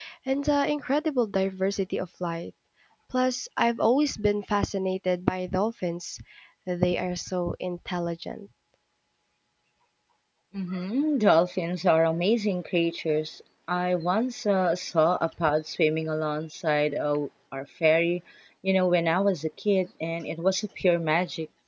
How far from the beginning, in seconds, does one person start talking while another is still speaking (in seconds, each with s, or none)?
none